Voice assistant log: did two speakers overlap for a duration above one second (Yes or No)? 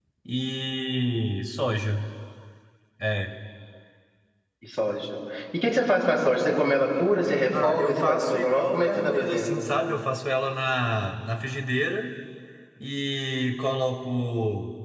Yes